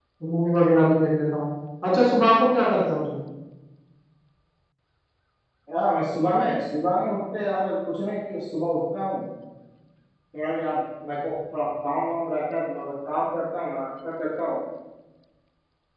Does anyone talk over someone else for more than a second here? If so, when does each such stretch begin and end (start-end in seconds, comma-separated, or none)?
none